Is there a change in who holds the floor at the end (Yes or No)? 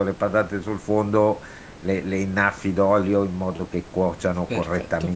No